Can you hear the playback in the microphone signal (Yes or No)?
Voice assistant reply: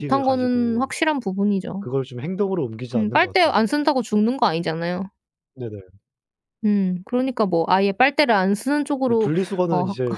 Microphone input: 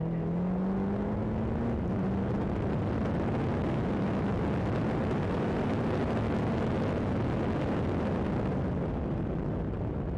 No